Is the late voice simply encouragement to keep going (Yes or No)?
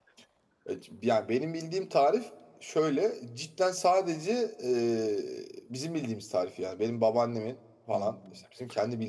Yes